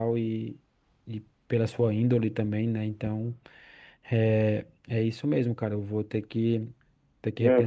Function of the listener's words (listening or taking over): taking over